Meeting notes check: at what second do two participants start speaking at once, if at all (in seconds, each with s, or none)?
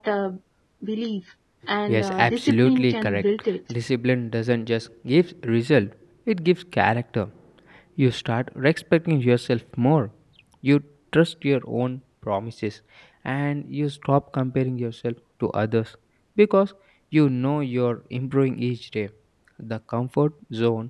1.9 s